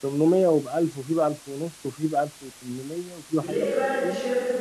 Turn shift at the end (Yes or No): Yes